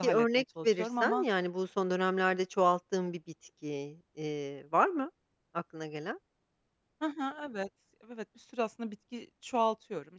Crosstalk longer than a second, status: present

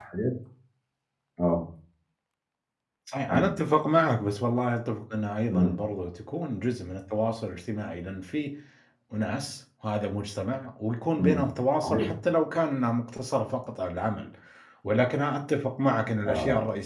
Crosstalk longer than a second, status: none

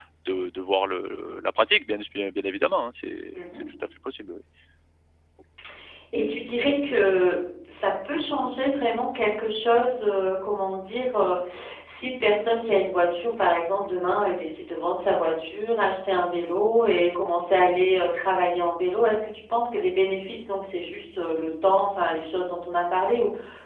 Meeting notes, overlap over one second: none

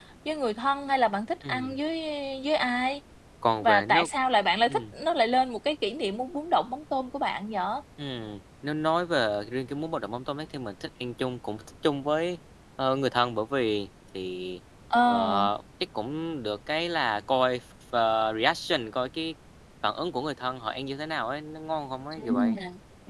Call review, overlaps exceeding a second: none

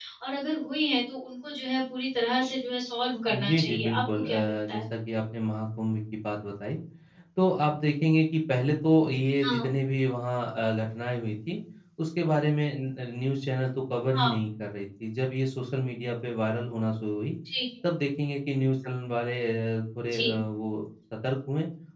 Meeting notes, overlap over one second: present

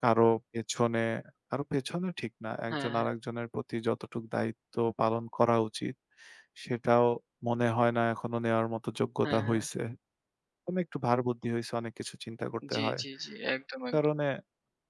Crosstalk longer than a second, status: none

